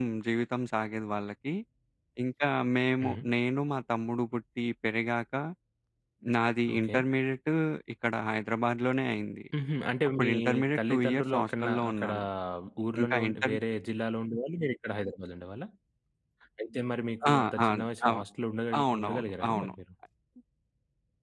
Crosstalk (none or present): present